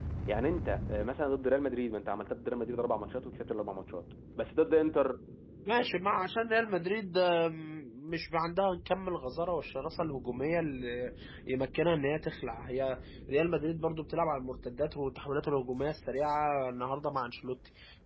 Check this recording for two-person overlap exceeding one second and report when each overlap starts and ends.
none

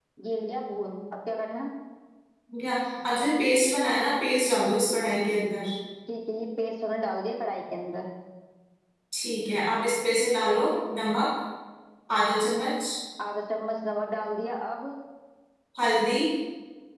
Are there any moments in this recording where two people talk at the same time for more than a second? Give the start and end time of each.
none

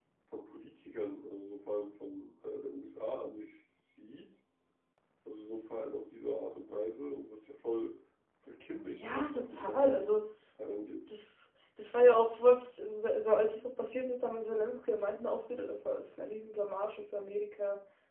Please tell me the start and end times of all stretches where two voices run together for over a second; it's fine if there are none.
8.9-10.1

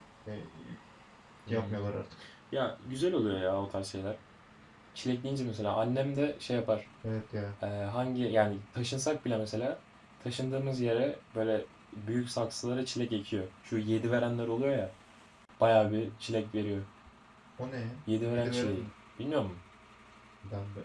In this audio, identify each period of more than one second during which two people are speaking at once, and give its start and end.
none

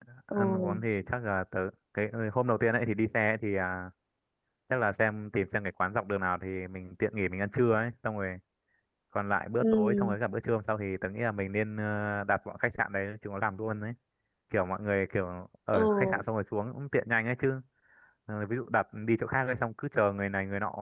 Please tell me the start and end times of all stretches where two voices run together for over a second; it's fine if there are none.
none

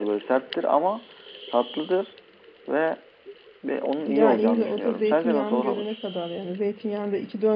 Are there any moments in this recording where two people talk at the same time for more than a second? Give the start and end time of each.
4.0-5.8

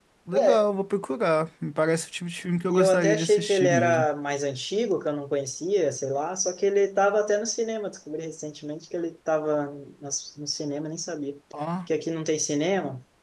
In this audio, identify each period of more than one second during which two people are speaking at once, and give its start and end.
2.7-4.1

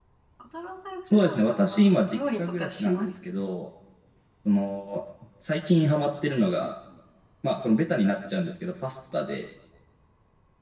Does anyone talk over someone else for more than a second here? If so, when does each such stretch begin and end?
1.1-3.1

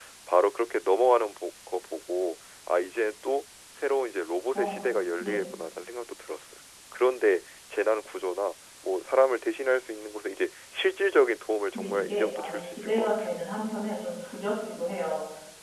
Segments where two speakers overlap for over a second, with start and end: 11.7-13.1

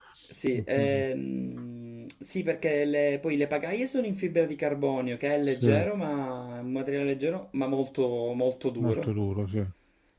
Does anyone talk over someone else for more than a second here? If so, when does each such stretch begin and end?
none

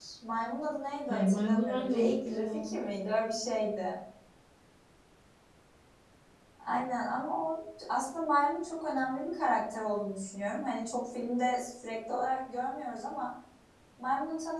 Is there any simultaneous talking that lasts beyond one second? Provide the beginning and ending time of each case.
1.1-2.7

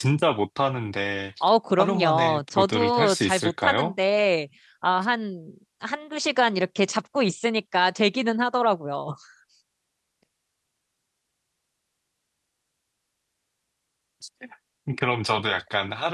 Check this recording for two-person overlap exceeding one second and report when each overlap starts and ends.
1.8-3.9

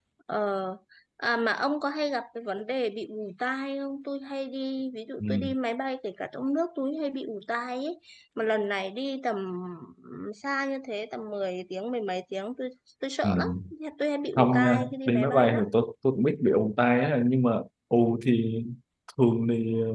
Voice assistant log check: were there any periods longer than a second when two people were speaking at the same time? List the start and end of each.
14.4-15.6

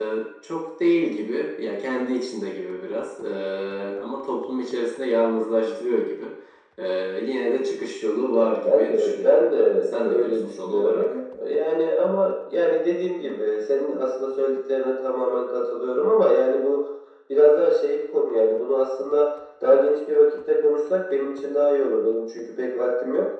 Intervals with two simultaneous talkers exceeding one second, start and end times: 8.4-11.1

